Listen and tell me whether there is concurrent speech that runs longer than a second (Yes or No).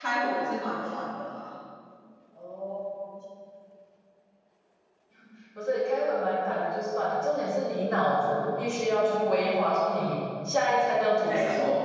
No